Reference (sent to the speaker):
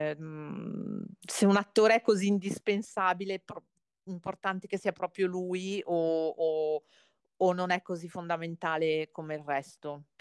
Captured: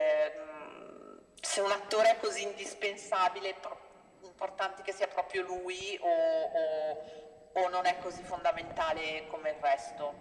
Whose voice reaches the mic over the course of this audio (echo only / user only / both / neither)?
echo only